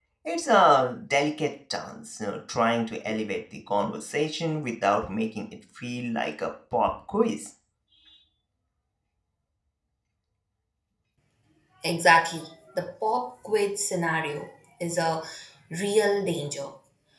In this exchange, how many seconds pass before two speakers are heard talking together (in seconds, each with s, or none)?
none